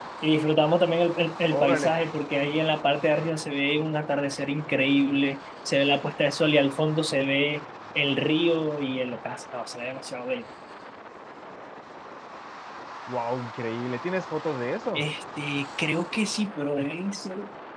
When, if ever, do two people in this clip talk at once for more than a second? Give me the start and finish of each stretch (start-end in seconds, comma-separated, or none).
none